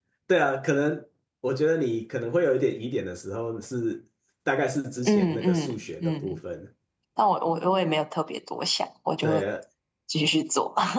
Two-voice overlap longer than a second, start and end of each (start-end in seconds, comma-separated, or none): 5.0-6.4